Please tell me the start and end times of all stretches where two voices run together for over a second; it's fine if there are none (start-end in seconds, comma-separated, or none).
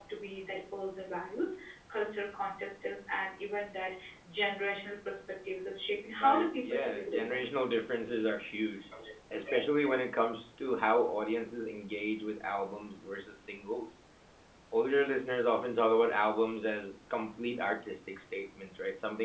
6.2-7.4